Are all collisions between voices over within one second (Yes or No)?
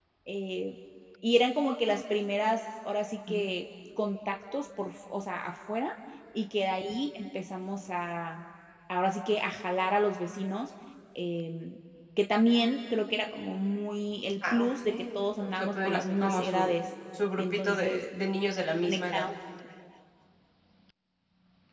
No